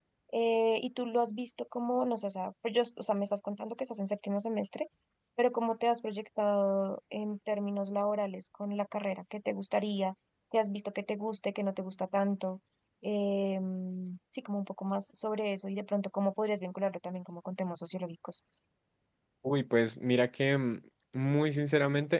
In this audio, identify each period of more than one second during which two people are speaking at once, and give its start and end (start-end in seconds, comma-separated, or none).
none